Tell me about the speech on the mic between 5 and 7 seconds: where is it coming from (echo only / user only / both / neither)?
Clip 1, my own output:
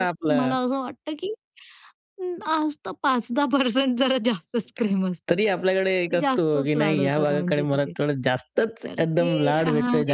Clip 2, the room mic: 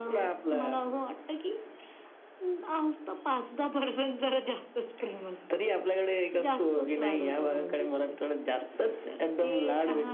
echo only